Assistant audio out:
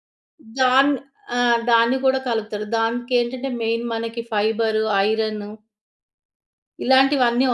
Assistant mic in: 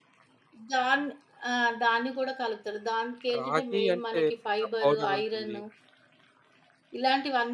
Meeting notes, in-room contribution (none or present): present